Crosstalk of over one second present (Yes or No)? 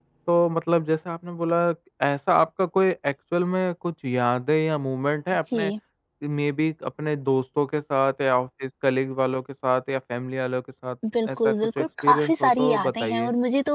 Yes